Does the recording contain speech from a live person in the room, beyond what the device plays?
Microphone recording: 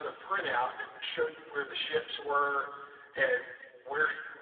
No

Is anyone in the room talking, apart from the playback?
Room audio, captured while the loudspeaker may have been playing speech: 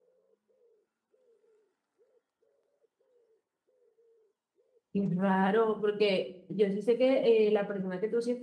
Yes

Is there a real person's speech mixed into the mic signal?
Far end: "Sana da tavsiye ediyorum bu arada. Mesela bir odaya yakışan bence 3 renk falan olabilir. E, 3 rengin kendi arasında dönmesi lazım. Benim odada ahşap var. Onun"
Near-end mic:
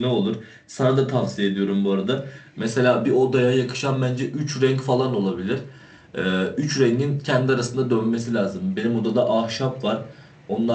No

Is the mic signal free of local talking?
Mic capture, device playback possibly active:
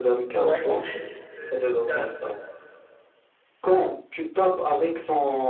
No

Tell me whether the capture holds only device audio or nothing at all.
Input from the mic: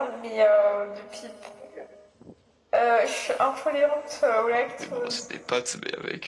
No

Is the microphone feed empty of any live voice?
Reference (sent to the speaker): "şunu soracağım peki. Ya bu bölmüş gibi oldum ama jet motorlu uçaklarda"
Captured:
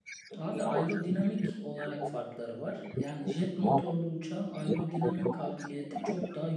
No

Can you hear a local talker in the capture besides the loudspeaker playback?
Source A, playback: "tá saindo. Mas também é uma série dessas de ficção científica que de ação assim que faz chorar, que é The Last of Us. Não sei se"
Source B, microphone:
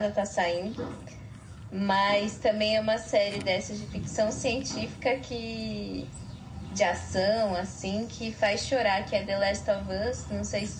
No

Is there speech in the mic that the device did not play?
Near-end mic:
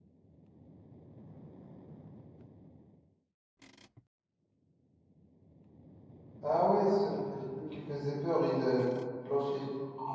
Yes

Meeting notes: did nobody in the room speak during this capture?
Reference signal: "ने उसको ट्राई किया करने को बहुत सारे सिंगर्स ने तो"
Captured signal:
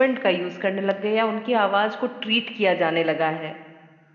No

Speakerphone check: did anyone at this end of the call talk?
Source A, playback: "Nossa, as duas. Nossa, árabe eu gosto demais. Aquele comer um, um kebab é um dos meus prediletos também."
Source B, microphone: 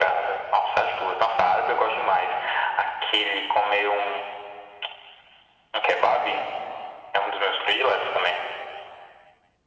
No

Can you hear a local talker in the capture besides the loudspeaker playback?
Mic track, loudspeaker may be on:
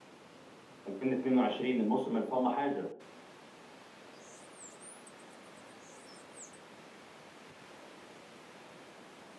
Yes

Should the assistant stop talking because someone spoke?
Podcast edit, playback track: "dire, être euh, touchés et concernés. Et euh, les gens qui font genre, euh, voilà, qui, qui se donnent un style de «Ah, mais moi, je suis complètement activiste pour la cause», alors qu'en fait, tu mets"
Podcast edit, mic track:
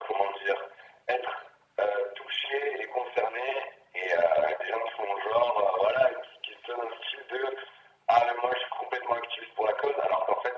No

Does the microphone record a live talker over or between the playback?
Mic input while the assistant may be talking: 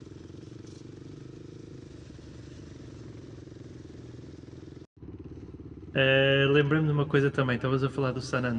Yes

